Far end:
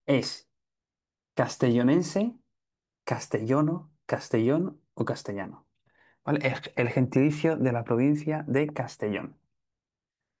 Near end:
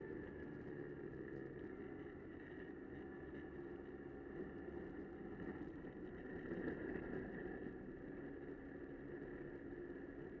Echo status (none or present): none